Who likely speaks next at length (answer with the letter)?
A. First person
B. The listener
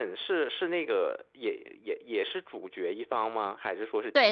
B